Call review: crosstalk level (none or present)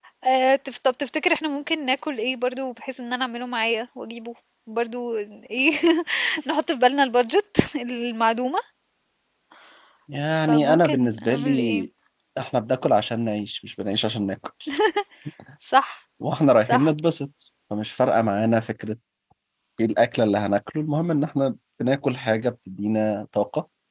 present